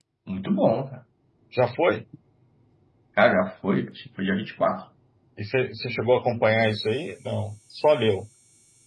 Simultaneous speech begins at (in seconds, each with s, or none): none